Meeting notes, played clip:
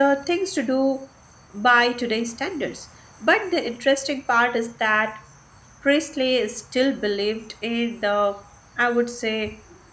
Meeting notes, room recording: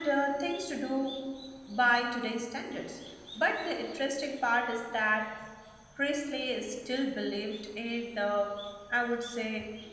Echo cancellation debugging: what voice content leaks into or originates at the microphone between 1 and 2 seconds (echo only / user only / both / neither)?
echo only